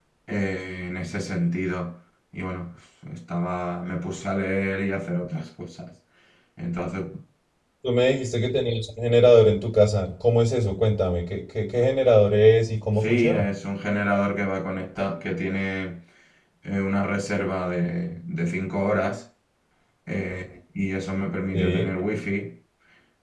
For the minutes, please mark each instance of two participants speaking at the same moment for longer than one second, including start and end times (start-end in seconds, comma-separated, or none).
none